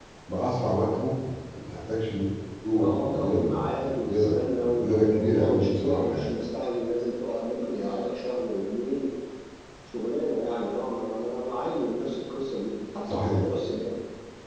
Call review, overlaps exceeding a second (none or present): present